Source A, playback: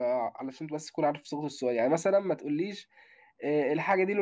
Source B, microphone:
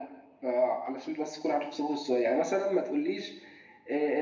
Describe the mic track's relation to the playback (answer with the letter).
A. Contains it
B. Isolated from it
A